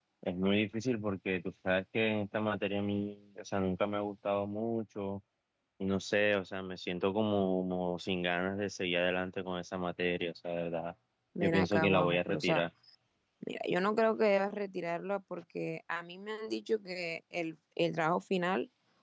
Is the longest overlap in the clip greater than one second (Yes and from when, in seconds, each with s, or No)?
Yes, from 11.4 s